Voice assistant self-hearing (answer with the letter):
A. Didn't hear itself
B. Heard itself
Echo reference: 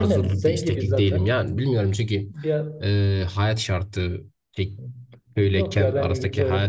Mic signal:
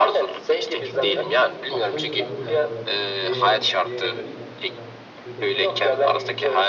B